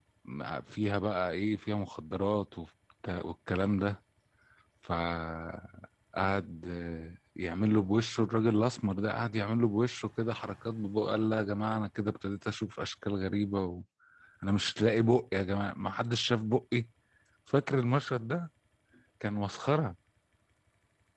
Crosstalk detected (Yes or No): No